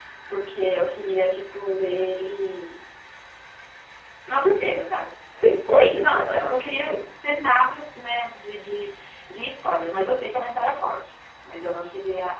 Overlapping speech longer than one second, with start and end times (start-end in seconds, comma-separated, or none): 5.7-6.9